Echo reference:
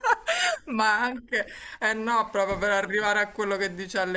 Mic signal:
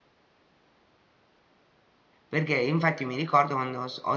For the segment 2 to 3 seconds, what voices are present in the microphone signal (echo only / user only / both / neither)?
user only